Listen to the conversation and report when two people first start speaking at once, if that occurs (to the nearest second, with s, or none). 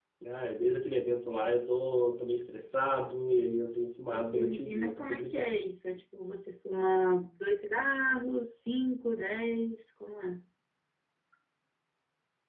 4 s